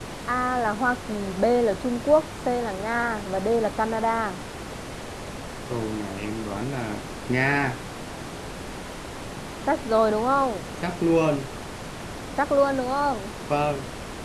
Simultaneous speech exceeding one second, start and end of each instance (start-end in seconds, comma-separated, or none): none